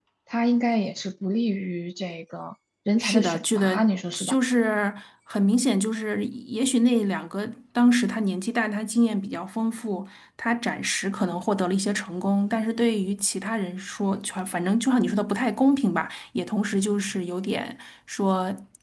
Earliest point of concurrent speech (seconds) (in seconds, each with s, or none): 3.0 s